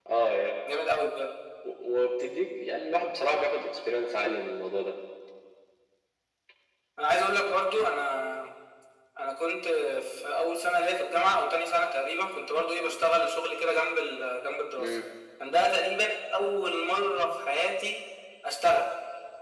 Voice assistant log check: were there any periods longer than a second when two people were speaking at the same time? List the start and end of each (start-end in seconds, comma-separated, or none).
none